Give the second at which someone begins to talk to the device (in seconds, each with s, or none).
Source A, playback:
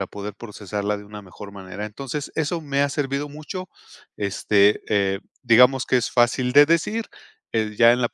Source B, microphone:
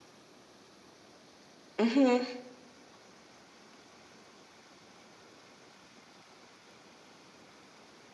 1.8 s